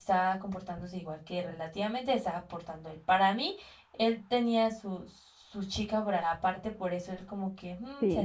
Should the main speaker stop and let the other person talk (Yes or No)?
Yes